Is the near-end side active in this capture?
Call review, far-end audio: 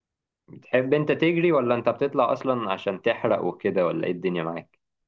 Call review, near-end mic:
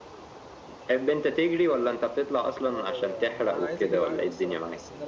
Yes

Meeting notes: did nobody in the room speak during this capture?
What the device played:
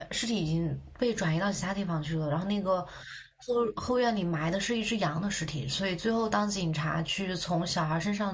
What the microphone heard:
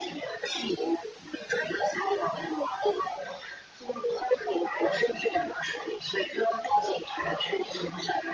Yes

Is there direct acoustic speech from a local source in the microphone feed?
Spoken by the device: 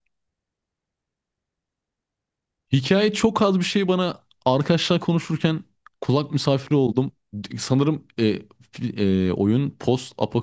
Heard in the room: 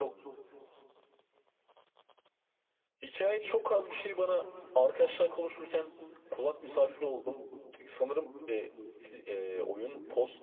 No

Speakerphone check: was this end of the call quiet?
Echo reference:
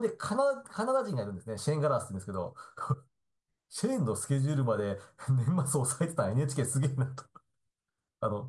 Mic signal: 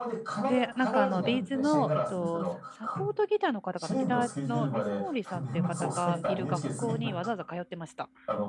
No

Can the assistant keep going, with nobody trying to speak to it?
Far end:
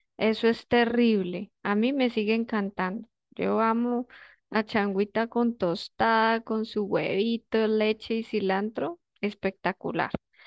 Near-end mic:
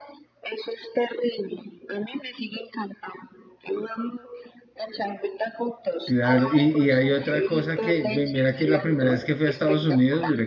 No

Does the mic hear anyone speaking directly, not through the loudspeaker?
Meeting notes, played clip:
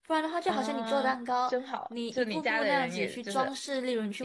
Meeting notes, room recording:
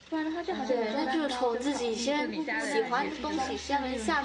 Yes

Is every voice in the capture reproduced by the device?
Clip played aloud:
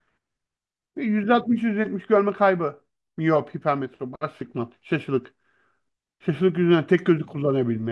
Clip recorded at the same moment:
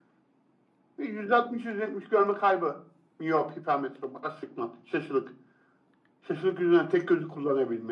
Yes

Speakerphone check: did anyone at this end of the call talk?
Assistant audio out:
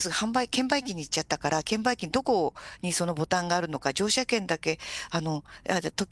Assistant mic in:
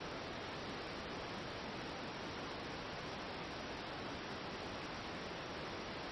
No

